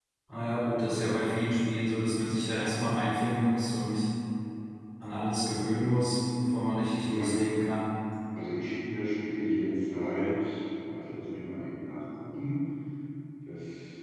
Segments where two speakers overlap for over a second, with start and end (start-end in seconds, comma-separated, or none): none